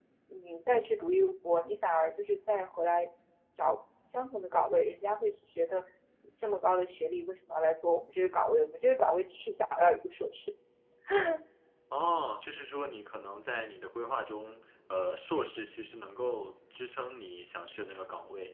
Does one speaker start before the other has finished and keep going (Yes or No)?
No